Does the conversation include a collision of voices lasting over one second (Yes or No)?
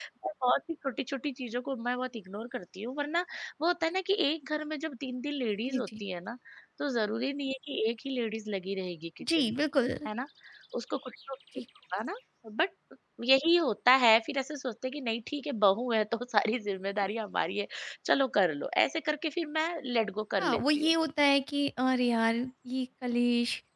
No